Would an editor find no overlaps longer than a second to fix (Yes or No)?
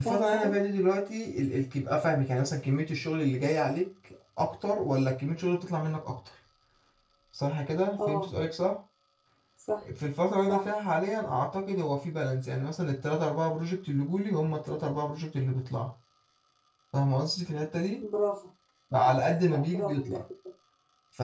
No